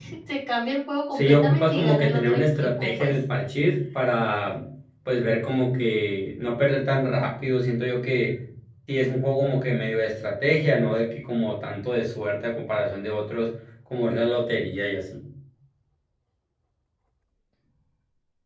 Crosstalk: present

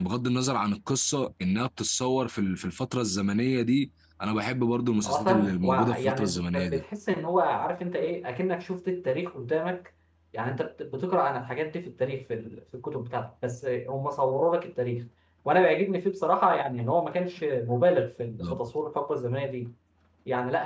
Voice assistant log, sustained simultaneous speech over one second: present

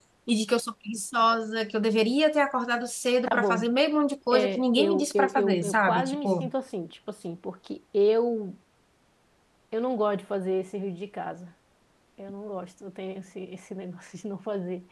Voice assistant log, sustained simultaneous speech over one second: present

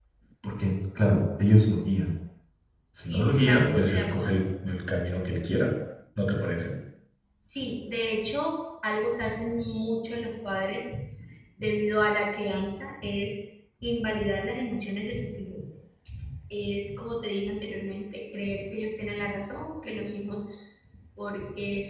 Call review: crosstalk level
present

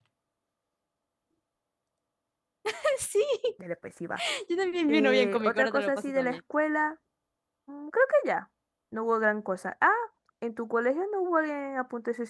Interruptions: present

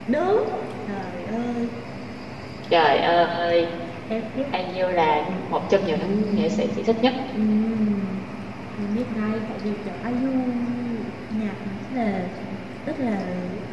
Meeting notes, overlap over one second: none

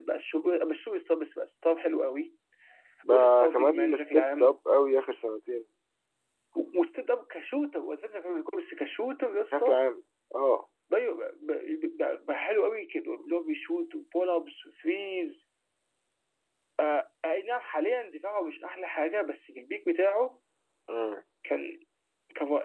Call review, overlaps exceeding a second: present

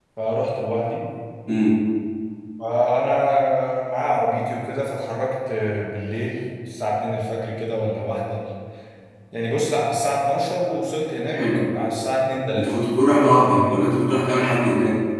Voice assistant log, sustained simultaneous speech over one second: none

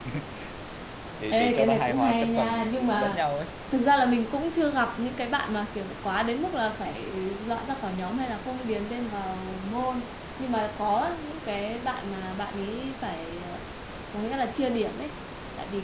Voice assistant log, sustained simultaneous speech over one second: present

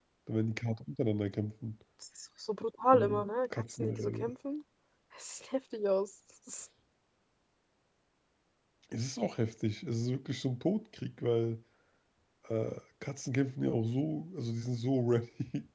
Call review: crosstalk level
present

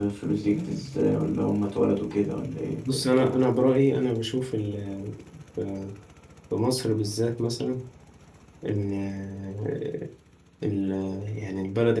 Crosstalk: none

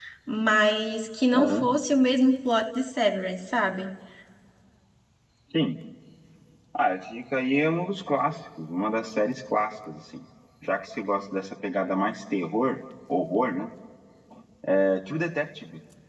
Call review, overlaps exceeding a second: none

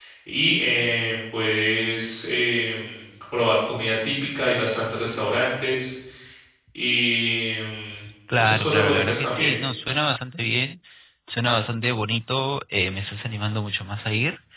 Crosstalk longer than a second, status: present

